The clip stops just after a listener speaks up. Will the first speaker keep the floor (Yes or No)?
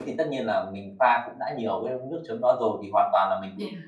Yes